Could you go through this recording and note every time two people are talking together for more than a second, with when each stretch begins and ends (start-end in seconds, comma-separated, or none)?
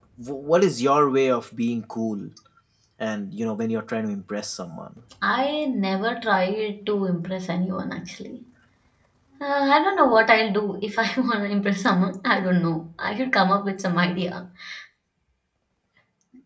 none